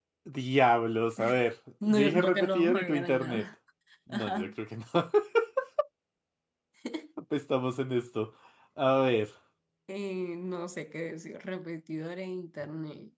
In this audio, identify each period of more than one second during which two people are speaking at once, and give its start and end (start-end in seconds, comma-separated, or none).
1.9-3.5